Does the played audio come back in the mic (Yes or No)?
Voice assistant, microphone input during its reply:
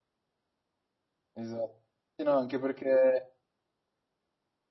No